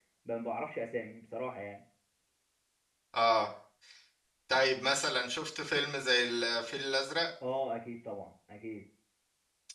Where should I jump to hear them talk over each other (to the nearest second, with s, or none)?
none